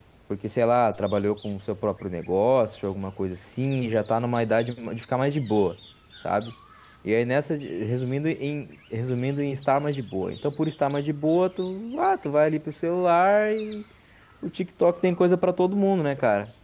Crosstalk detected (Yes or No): No